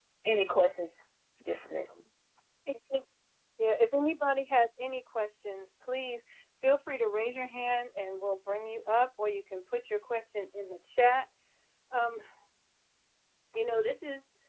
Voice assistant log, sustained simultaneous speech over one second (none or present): none